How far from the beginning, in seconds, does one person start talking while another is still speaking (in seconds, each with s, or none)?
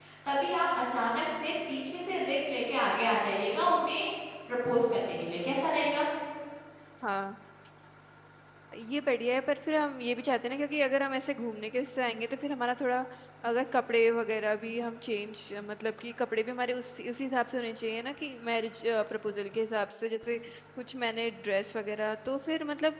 none